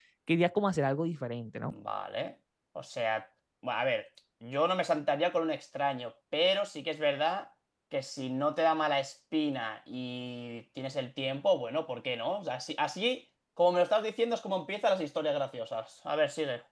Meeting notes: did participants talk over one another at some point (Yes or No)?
No